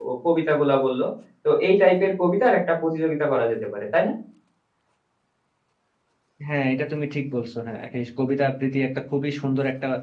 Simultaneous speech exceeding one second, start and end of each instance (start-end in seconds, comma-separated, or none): none